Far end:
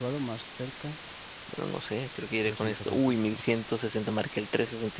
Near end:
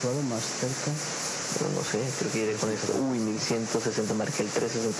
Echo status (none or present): present